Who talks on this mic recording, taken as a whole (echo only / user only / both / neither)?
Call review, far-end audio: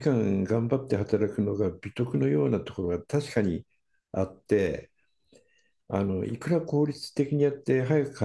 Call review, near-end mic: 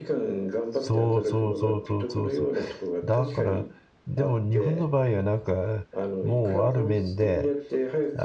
both